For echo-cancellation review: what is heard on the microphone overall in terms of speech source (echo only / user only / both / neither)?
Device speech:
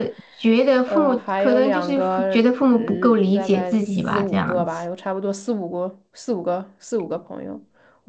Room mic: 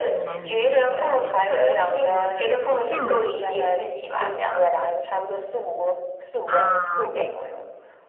both